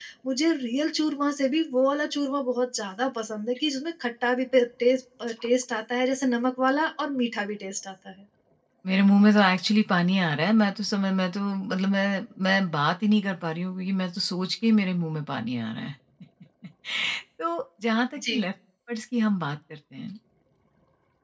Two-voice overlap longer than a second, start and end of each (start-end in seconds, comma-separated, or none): none